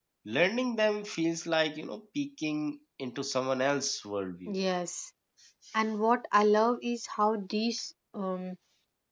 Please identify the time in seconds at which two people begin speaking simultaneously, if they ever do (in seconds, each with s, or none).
none